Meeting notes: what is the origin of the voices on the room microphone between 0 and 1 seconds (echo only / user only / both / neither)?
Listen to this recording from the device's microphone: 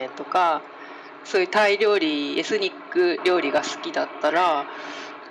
echo only